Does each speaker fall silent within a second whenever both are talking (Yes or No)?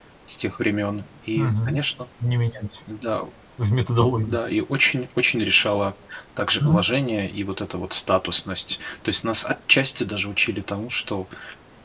Yes